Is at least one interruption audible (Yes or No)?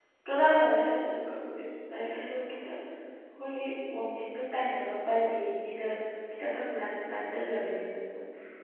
No